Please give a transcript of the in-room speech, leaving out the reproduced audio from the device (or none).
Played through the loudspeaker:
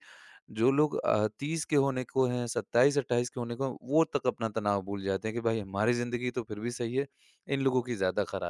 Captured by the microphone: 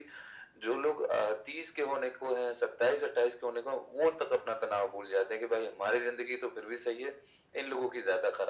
none